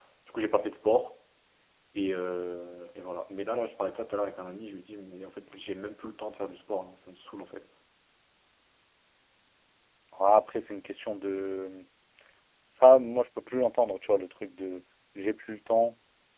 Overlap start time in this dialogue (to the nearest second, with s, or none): none